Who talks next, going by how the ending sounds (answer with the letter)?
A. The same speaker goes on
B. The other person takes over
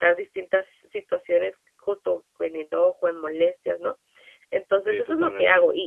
A